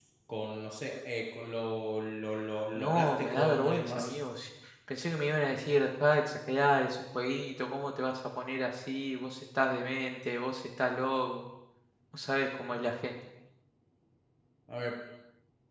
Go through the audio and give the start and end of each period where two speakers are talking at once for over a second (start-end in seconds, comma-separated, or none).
2.8-4.1